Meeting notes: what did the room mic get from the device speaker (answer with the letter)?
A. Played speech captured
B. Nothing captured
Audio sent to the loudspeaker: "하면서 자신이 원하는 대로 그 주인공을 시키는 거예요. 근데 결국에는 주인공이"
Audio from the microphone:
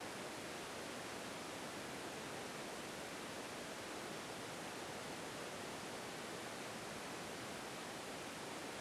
B